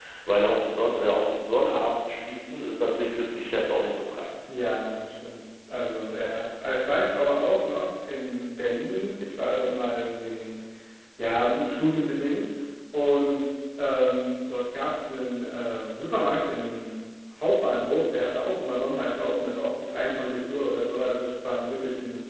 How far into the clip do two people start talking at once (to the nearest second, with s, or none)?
none